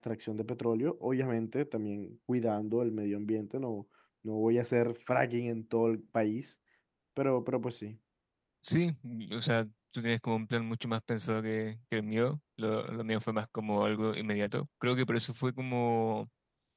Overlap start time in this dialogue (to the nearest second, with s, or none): none